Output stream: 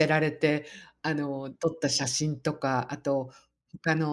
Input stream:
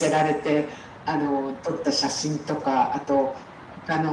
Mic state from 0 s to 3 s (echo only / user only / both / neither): echo only